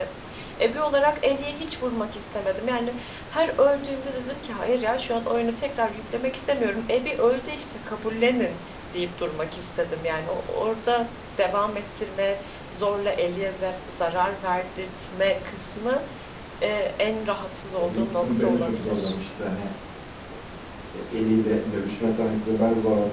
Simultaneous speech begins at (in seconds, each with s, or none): 17.8 s